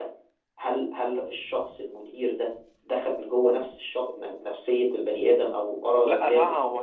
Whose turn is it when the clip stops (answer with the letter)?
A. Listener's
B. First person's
A